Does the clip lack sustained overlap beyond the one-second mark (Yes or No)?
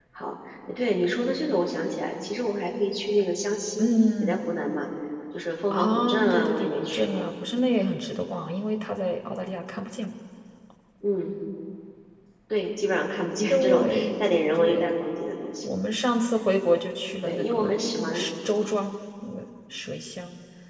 No